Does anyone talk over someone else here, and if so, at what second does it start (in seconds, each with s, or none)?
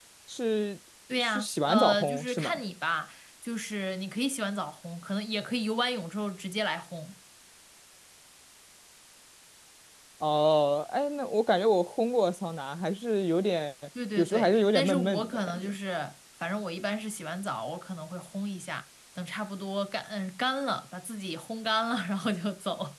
1.2 s